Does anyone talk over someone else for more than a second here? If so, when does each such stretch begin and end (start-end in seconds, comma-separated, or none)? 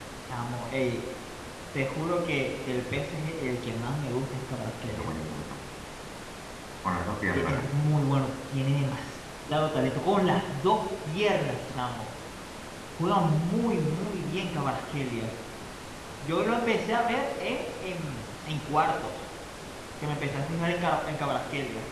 none